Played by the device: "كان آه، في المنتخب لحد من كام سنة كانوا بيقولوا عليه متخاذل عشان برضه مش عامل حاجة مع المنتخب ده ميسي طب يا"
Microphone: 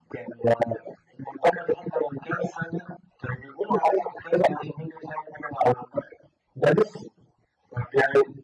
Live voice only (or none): none